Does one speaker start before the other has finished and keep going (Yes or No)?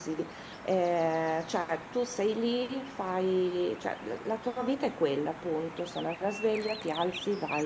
No